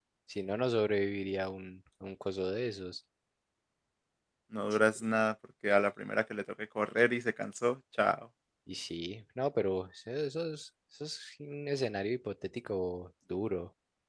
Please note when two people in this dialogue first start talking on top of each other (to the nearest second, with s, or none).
none